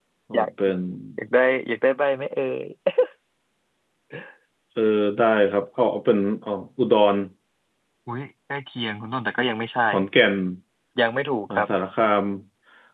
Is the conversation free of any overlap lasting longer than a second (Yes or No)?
Yes